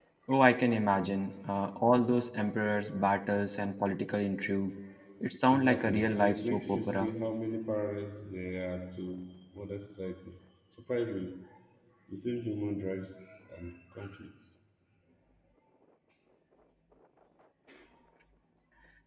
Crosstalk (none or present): present